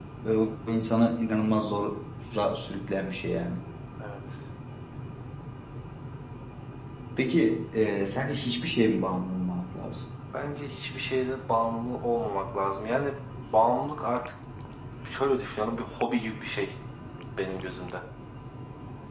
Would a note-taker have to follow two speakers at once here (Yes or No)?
No